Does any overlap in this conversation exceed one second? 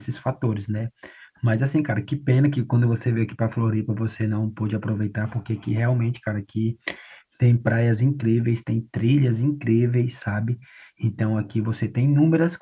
No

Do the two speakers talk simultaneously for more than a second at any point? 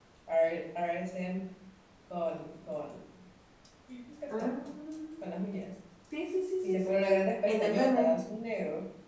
Yes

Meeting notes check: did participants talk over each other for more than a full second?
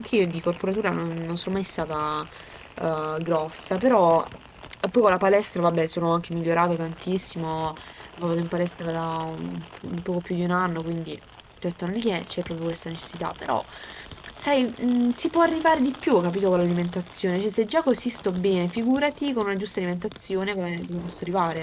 No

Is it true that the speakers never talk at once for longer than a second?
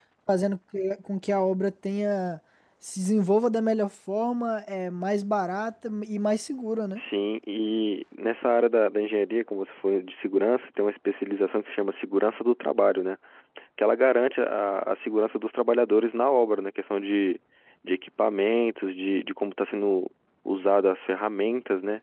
Yes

